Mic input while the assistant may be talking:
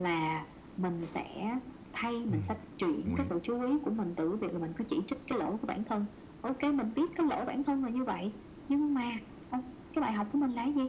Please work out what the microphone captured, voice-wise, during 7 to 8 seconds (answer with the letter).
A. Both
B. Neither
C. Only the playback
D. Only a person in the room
C